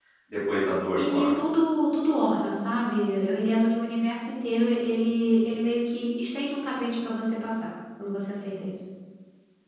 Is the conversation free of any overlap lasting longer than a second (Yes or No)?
Yes